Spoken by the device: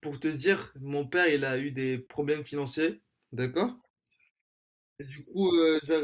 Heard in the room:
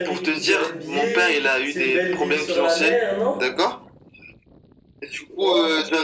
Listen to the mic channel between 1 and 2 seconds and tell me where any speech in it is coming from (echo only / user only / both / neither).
both